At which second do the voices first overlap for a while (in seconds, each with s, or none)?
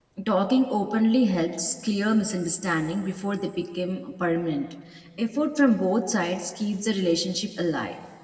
none